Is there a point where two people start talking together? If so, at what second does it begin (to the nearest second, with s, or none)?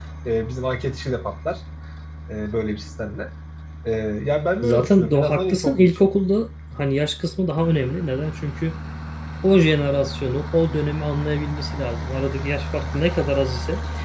5 s